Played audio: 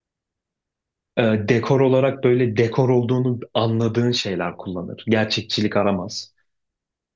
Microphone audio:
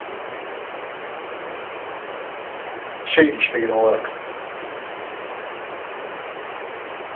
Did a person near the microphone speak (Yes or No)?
Yes